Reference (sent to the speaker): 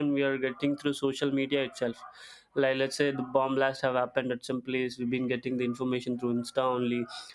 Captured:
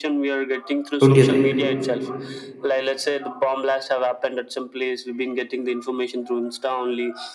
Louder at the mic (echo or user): user